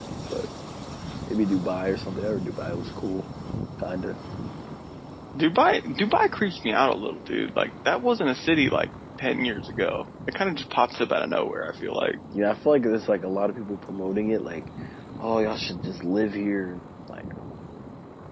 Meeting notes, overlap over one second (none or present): none